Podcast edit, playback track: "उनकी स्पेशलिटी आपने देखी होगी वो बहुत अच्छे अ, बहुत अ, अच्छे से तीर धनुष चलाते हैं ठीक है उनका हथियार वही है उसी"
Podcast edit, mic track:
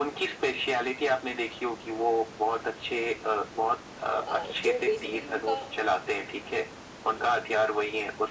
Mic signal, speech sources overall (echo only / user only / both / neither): both